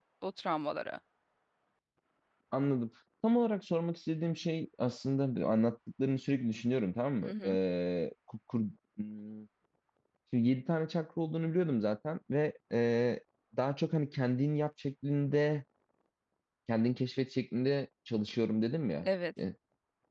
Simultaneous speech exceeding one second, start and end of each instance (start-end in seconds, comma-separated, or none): none